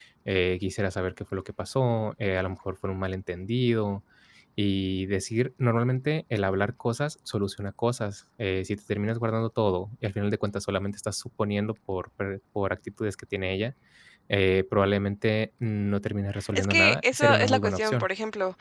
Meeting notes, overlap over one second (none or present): present